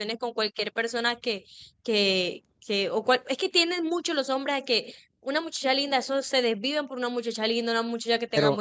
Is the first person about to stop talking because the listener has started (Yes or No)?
Yes